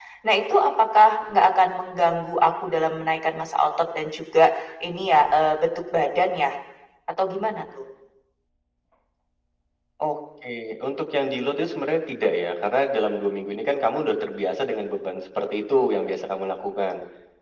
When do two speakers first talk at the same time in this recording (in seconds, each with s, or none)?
none